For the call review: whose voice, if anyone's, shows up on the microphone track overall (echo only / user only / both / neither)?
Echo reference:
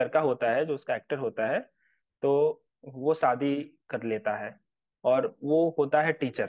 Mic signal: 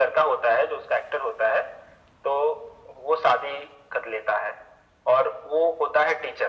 echo only